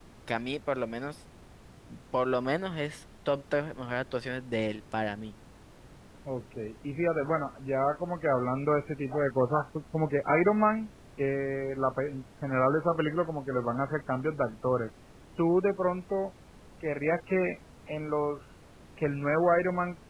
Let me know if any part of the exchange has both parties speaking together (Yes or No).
No